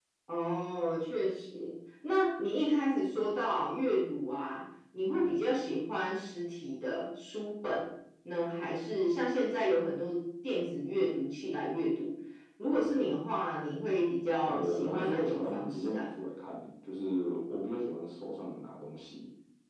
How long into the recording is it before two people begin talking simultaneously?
14 s

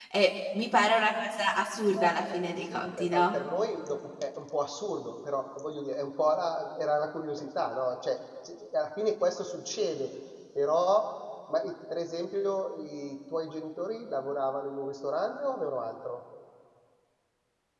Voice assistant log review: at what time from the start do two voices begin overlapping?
2 s

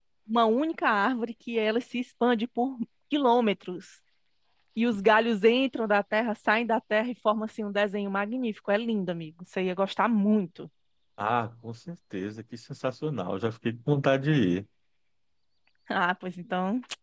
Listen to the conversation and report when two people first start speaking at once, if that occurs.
none

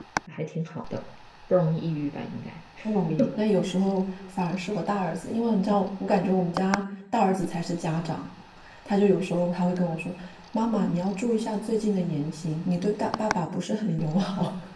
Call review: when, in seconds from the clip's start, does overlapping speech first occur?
none

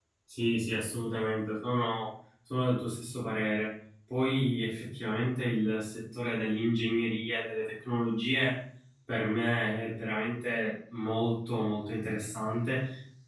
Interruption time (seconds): none

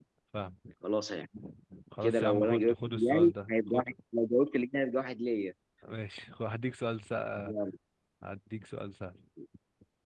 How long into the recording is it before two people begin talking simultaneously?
2 s

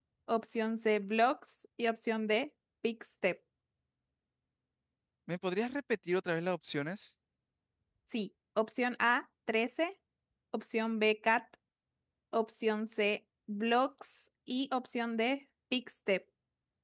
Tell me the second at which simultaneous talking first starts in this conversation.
none

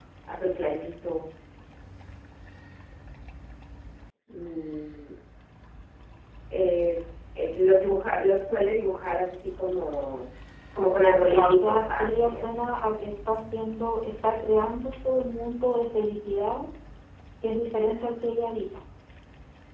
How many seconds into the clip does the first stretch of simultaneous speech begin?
11 s

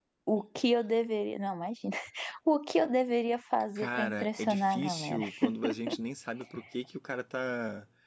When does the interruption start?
4 s

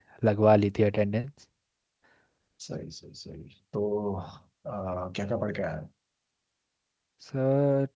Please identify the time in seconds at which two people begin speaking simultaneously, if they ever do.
none

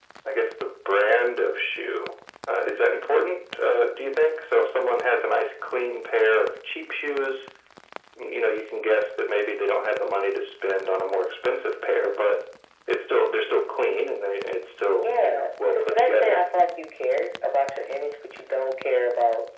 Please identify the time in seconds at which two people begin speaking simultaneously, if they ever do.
15 s

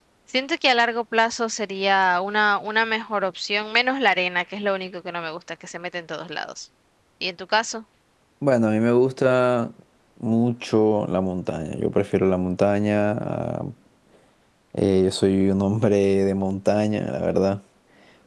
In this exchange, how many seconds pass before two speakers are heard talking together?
none

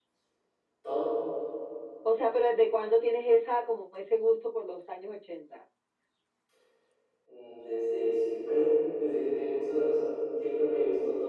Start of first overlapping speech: none

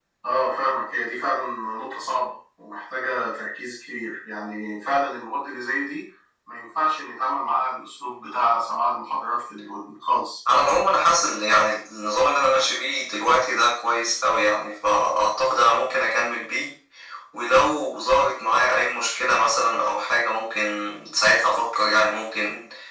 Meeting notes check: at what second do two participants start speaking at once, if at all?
none

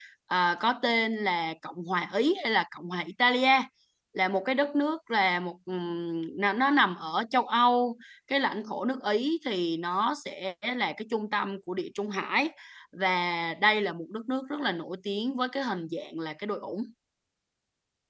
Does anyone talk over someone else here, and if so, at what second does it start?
none

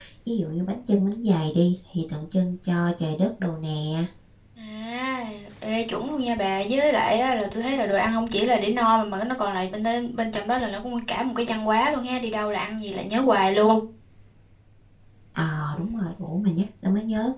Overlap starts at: none

